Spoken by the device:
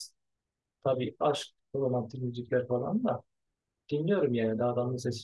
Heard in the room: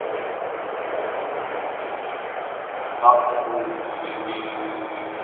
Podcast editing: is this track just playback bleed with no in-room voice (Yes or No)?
No